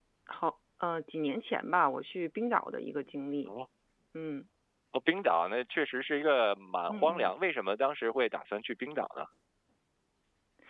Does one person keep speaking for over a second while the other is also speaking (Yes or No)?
No